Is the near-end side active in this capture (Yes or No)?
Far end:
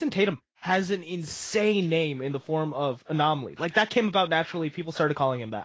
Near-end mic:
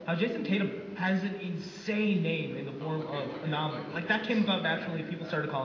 Yes